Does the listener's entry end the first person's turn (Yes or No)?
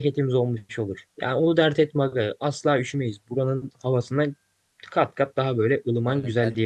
Yes